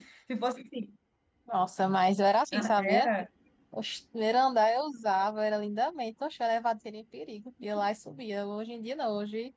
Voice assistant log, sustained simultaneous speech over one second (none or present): none